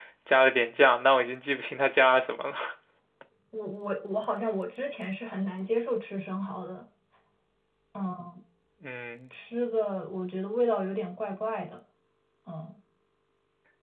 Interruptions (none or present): none